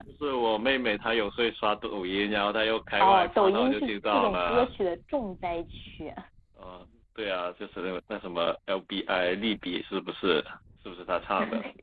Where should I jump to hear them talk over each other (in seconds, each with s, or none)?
3.0 s